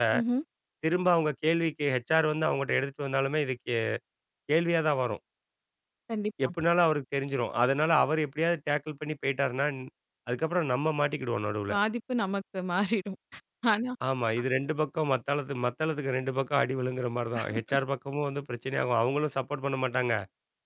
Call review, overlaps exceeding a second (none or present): none